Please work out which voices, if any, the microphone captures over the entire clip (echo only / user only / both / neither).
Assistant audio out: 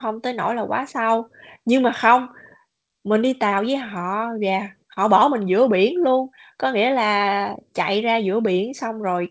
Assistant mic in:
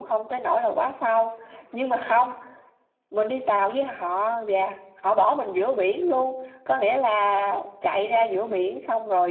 echo only